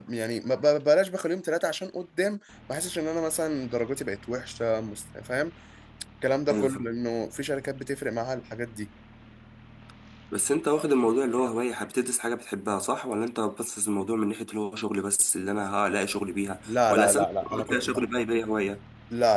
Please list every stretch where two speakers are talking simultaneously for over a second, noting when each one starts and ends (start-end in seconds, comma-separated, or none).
16.7-18.1